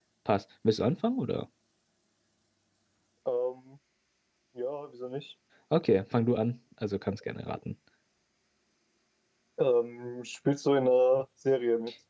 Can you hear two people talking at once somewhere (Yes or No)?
No